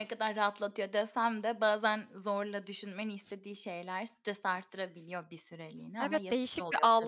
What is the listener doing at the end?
taking over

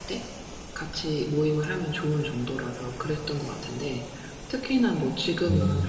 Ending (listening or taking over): listening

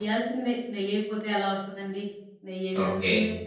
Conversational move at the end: taking over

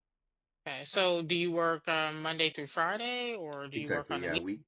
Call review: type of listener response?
taking over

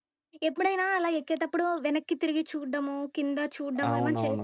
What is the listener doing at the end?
taking over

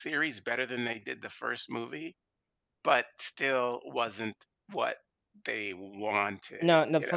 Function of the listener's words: taking over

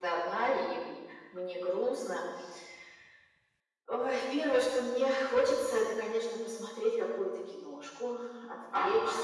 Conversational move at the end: taking over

